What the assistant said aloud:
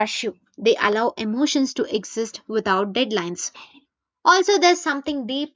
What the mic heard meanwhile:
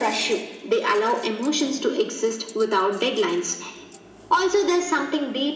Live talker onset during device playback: none

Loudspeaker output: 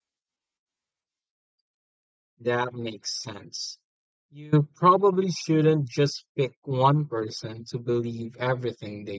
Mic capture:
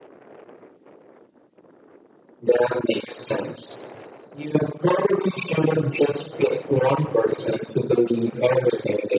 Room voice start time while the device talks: none

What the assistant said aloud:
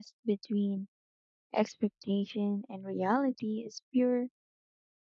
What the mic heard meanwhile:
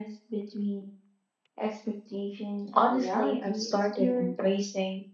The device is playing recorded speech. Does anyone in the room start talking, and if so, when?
2.7 s

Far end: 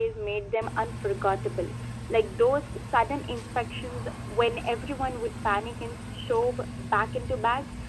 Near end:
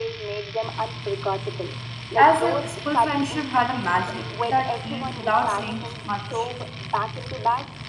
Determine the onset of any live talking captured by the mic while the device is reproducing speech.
2.2 s

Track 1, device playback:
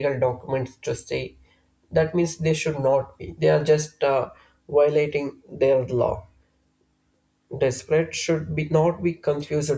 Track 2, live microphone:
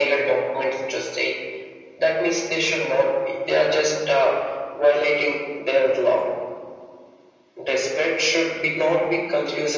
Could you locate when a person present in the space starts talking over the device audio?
none

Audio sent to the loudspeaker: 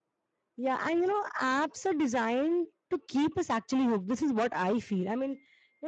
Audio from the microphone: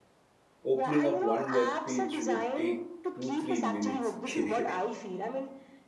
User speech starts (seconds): 0.6 s

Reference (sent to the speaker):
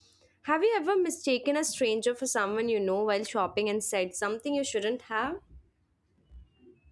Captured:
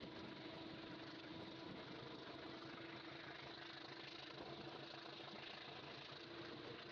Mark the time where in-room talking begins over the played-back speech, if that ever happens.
none

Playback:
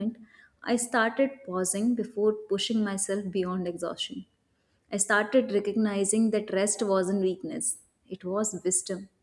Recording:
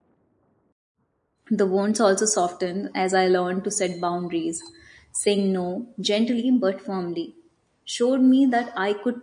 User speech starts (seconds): 1.5 s

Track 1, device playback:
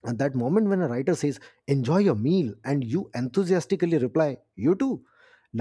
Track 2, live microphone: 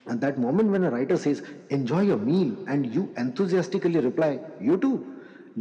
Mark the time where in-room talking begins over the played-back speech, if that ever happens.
none

